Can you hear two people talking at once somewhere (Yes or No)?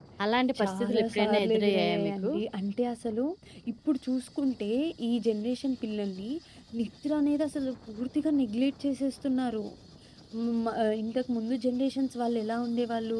Yes